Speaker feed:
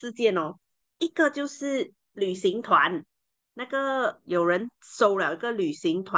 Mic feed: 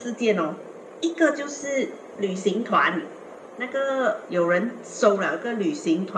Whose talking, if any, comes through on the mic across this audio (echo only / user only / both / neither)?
echo only